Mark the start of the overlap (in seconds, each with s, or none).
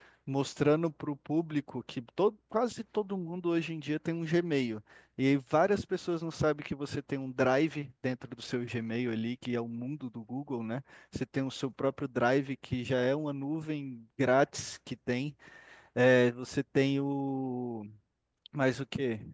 none